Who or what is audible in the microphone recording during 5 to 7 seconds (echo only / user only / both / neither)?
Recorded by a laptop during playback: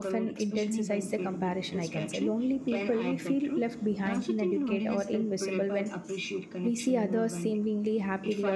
both